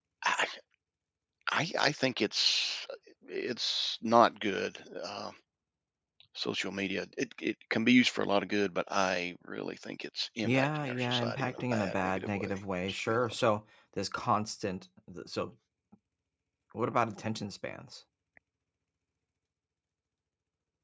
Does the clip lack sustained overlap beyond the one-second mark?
No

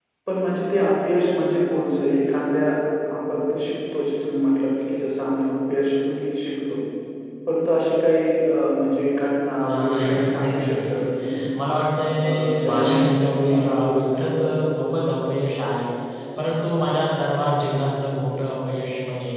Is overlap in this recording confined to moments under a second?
No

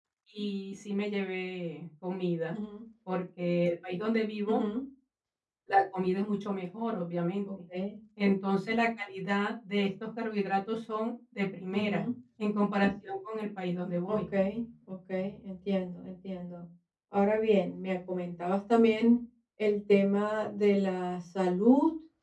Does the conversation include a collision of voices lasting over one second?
No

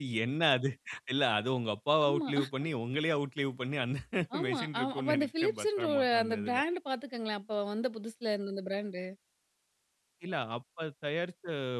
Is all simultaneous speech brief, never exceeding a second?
No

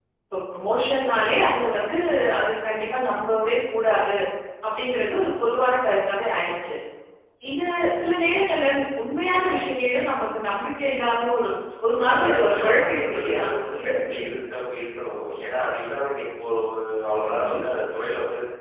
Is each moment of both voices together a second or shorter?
No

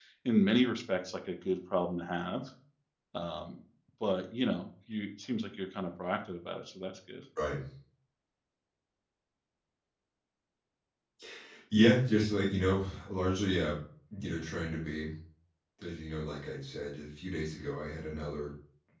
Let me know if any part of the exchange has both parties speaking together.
No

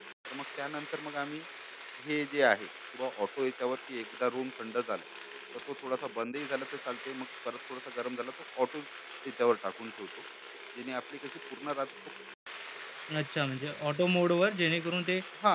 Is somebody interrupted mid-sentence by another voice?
No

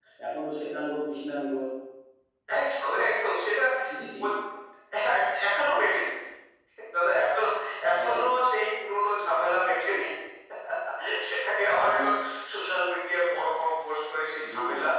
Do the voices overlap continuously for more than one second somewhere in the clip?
No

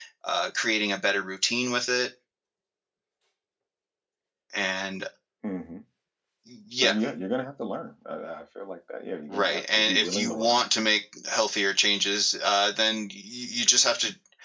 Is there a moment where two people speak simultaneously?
Yes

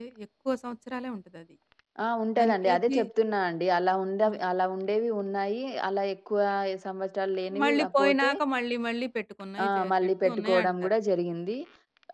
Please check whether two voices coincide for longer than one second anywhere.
Yes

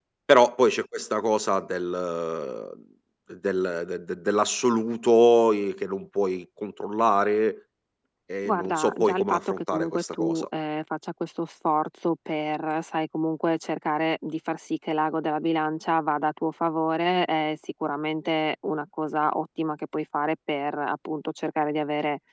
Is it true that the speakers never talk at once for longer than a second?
No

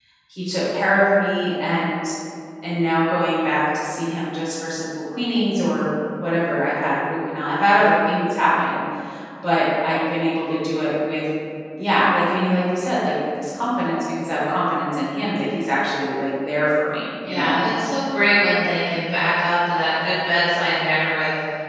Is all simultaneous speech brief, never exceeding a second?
Yes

